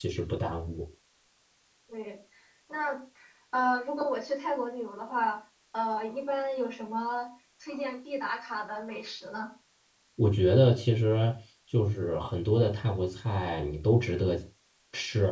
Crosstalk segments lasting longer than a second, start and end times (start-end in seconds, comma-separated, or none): none